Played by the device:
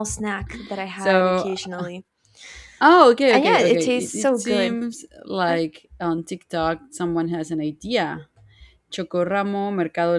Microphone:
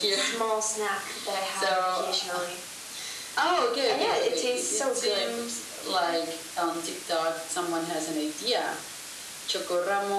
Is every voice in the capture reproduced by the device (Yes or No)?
Yes